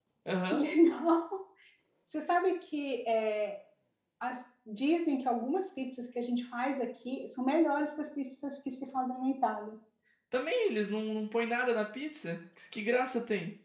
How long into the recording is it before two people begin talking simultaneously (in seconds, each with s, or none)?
none